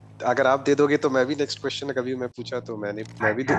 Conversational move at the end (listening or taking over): taking over